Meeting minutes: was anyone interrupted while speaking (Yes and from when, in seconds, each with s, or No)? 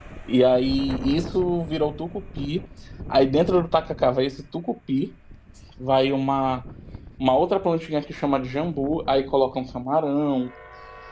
No